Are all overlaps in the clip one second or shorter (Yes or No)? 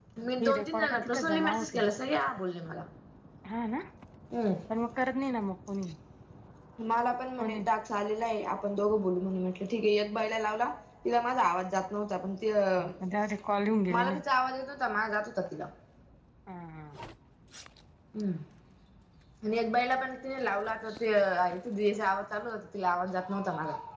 No